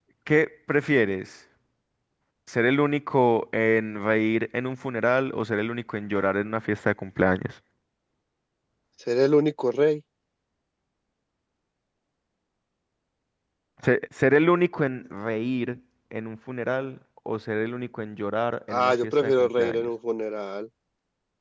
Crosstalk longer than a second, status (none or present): present